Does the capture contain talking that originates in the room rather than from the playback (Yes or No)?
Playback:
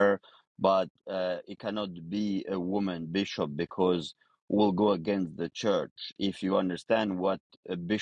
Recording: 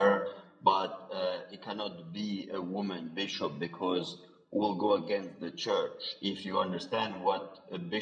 No